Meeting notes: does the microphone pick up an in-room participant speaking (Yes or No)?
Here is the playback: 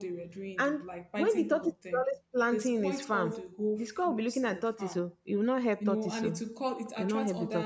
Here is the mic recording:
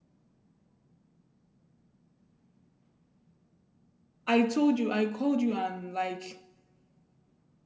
Yes